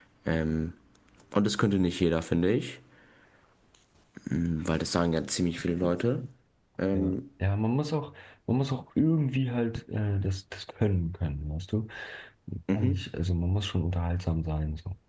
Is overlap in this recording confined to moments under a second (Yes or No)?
Yes